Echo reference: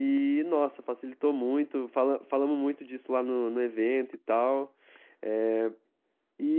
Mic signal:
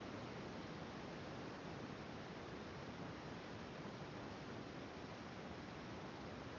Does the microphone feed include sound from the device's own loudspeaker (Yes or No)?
No